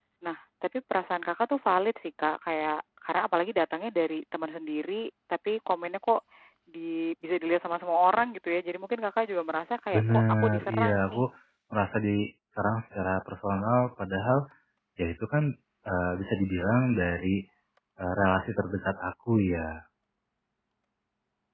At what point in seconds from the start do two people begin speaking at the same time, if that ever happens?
9.9 s

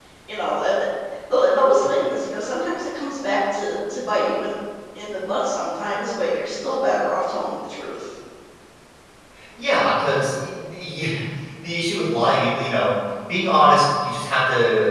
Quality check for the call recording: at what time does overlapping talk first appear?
none

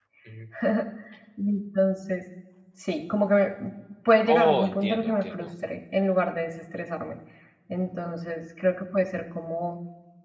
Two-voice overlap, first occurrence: 4.3 s

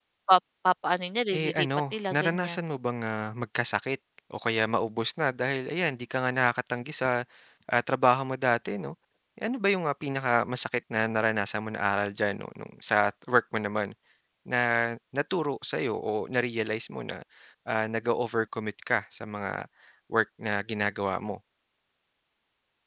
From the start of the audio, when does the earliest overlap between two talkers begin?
1.3 s

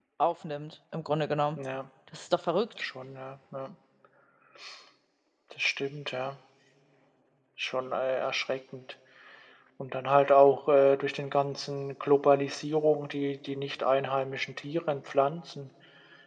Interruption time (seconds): none

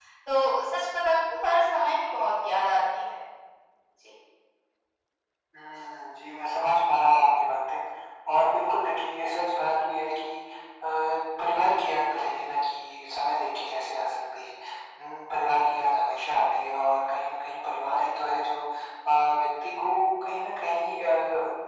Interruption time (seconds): none

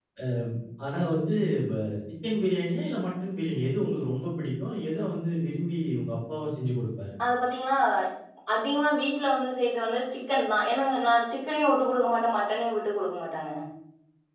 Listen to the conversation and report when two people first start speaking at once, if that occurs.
none

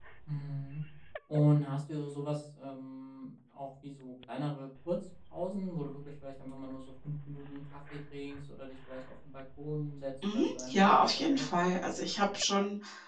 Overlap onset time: 10.2 s

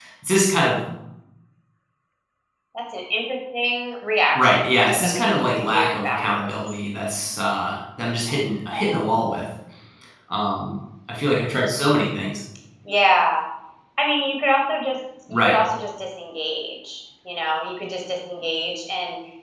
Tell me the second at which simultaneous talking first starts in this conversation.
4.4 s

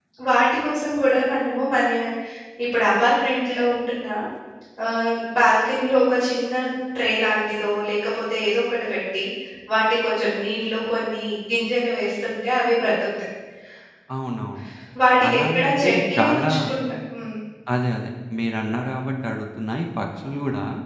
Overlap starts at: 15.3 s

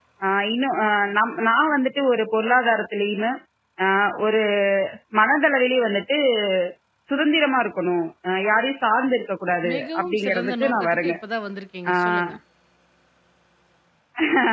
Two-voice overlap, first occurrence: 9.7 s

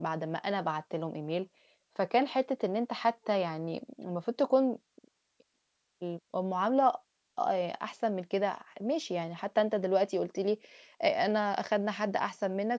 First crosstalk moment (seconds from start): none

